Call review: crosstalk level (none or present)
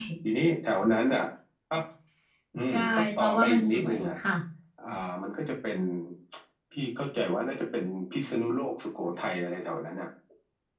present